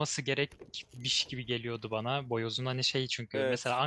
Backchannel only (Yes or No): Yes